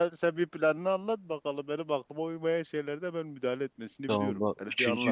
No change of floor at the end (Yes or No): No